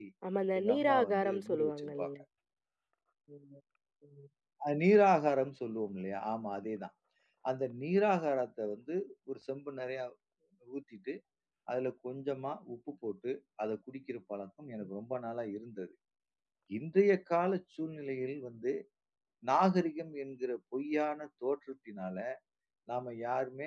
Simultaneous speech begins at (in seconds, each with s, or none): 0.6 s